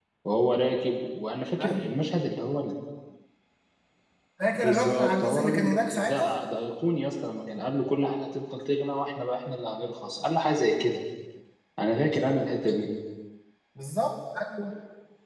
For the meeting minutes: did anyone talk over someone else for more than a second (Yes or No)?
Yes